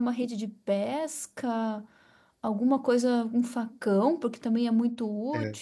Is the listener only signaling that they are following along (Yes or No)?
Yes